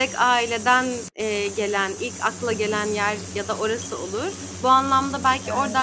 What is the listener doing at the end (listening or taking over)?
listening